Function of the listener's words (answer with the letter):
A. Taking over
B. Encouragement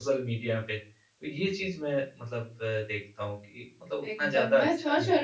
A